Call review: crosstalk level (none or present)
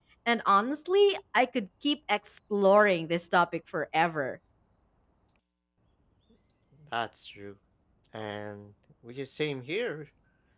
none